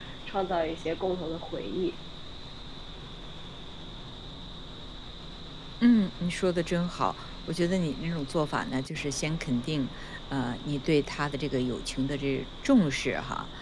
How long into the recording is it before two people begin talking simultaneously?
none

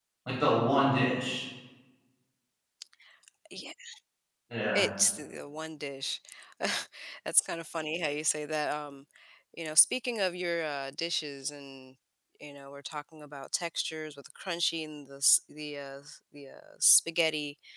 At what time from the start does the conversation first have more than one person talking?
none

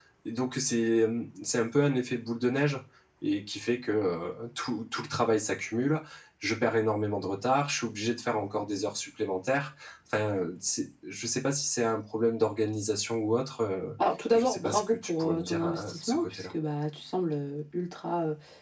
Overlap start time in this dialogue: 14.3 s

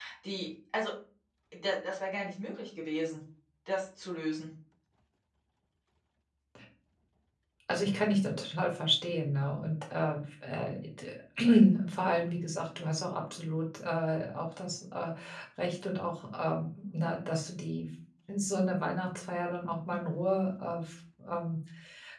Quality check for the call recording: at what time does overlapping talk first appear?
none

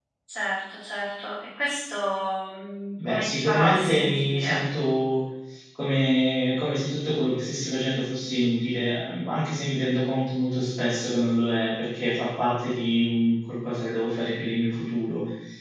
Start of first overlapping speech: 3.0 s

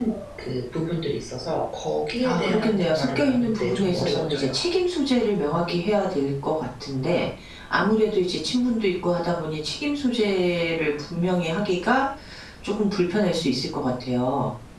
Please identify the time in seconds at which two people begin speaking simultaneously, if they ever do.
2.2 s

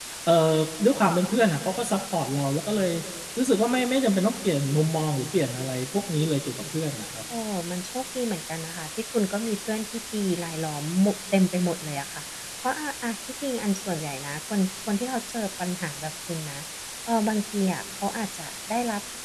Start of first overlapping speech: none

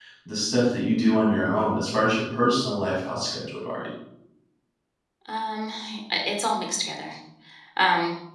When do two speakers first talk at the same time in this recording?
none

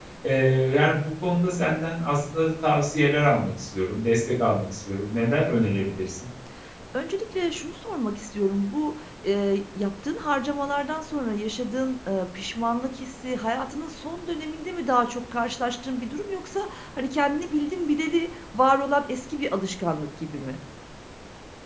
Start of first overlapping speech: none

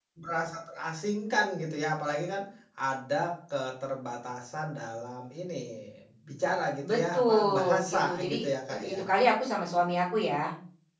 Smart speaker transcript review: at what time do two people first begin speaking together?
6.8 s

